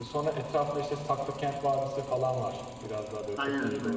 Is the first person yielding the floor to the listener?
No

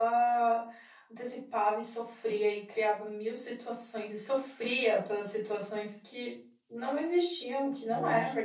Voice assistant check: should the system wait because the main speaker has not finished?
Yes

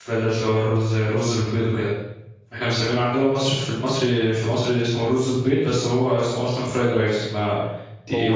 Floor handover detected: Yes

